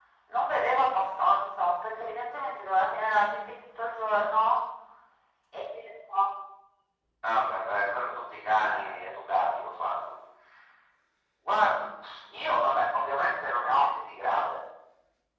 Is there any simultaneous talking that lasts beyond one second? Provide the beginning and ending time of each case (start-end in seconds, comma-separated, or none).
none